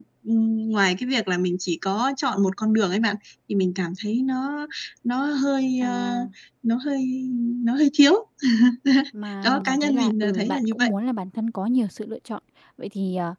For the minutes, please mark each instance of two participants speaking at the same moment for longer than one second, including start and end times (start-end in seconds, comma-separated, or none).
9.4-10.9